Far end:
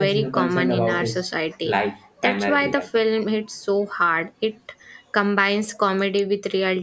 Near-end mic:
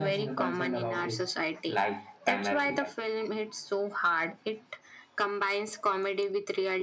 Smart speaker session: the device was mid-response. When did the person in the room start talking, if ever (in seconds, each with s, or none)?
none